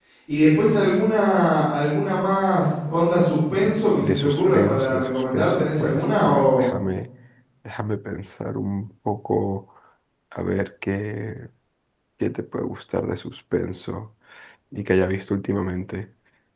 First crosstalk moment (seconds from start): 4.0 s

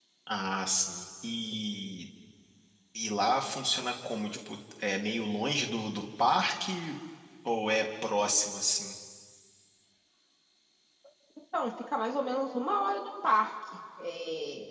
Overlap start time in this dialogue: none

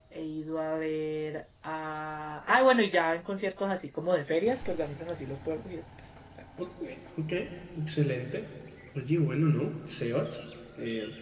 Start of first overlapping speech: none

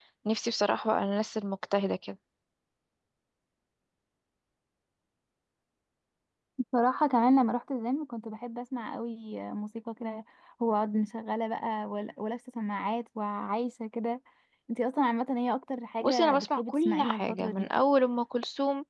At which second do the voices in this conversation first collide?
16.0 s

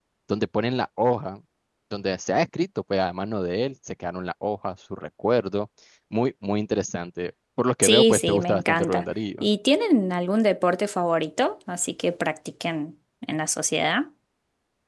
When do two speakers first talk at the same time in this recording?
7.8 s

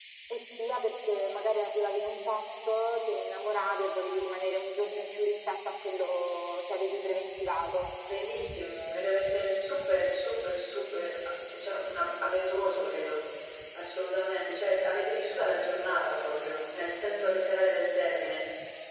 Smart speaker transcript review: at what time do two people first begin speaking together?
none

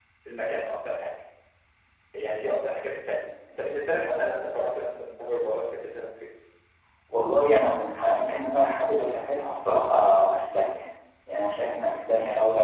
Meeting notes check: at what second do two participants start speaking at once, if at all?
none

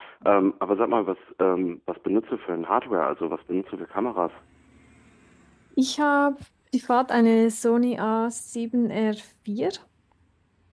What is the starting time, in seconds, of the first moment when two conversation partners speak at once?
none

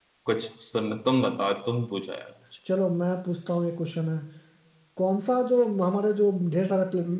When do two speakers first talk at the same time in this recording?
none

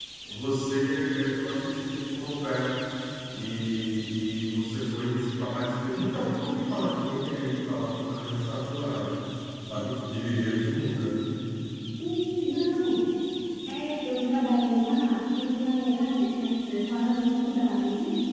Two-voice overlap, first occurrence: none

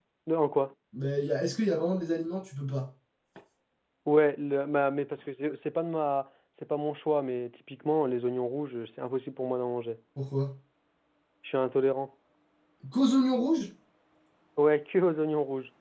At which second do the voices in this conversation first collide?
none

